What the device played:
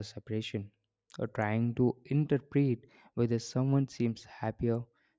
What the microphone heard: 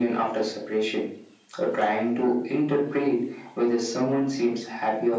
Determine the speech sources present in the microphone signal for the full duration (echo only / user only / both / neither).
echo only